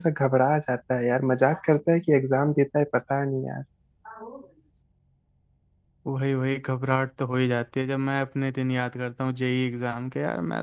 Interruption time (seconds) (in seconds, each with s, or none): none